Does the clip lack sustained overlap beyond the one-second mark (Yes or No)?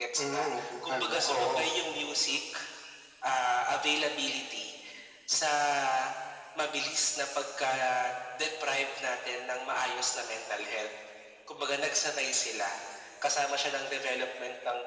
No